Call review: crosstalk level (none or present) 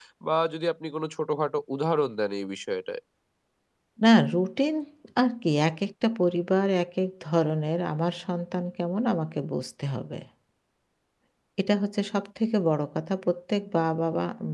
none